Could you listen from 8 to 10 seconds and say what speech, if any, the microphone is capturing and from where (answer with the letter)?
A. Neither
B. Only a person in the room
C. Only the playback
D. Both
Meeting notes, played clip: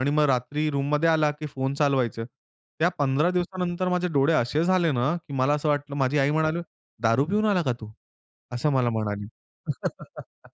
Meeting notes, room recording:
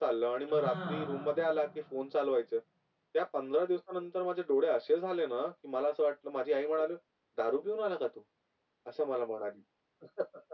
C